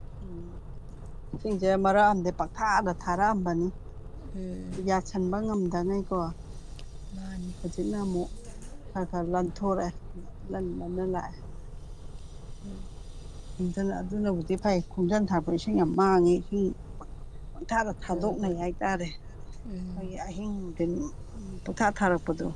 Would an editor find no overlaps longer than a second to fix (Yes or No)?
Yes